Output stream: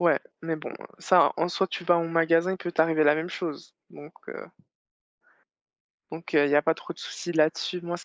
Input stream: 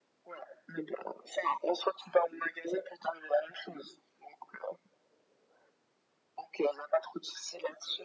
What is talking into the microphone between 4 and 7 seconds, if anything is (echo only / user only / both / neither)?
echo only